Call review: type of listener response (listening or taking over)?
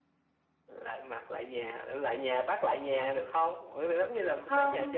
taking over